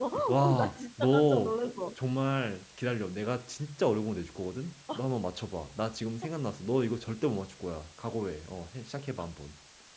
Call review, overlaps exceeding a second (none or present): present